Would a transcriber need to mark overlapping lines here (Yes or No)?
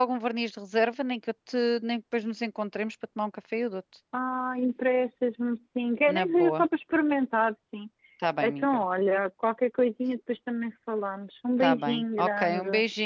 Yes